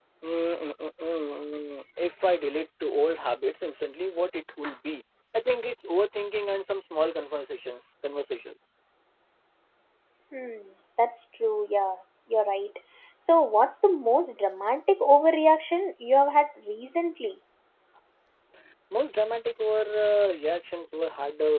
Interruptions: none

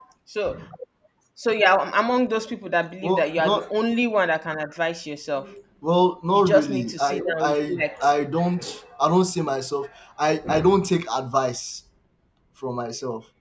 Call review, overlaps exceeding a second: present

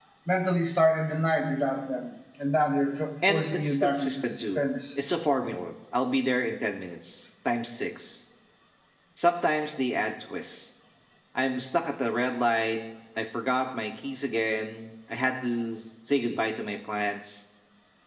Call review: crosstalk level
present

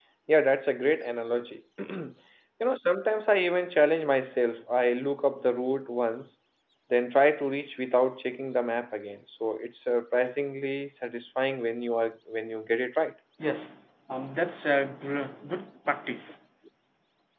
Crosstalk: none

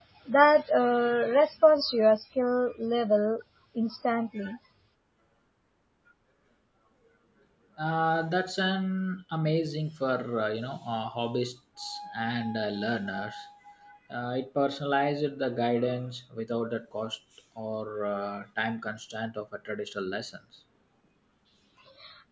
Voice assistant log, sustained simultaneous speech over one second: none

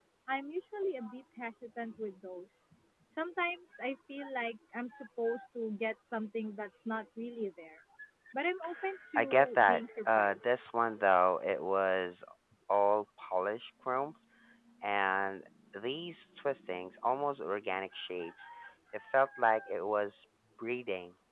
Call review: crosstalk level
present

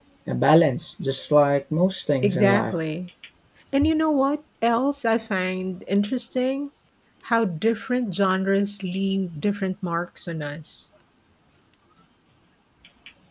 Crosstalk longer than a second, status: none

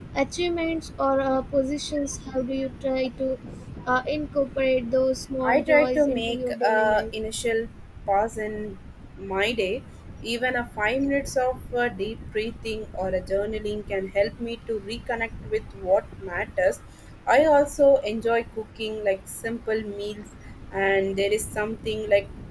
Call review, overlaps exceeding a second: present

